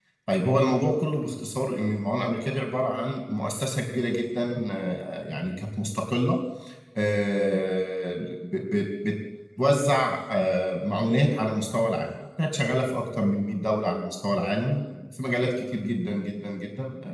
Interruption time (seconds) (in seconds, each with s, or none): none